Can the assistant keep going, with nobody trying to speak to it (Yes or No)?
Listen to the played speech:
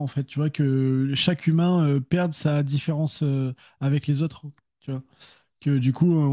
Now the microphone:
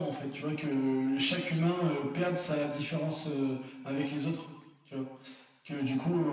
Yes